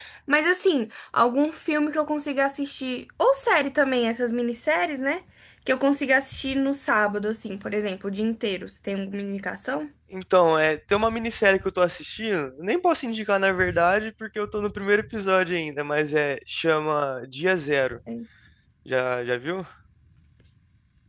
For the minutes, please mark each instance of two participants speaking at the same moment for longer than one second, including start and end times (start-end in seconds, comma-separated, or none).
none